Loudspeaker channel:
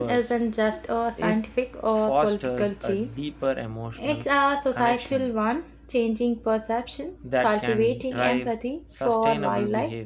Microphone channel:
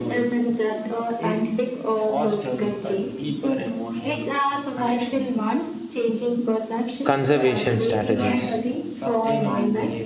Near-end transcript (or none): conservation strategies.